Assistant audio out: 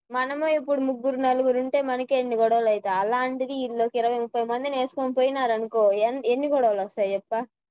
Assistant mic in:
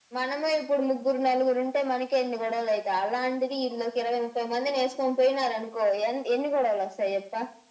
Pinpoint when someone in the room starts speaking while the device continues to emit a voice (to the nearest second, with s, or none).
none